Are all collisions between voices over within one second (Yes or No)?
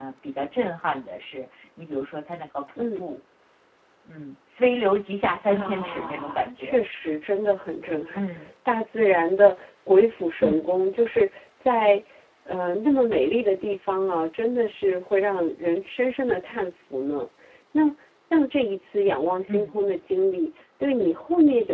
No